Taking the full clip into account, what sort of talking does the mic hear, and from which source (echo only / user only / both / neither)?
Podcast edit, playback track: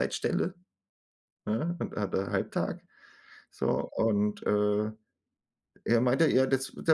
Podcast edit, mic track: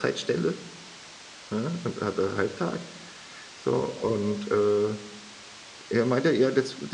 echo only